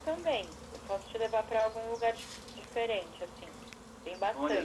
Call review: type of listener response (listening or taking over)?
taking over